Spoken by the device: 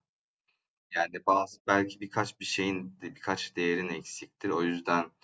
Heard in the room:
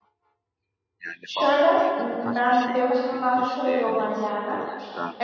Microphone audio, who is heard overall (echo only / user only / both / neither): both